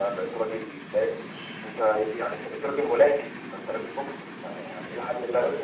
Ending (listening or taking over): listening